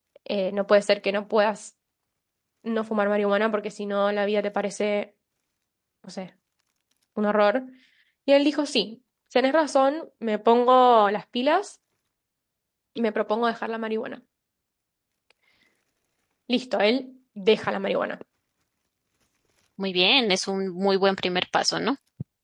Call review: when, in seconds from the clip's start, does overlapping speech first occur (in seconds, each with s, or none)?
none